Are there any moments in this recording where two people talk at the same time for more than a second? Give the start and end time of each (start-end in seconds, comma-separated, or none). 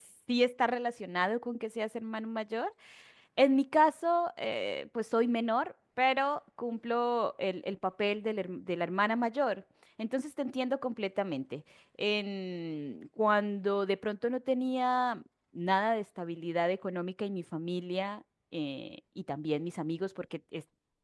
none